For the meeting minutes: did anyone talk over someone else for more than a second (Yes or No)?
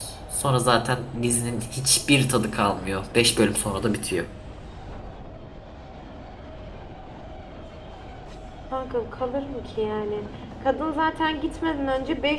No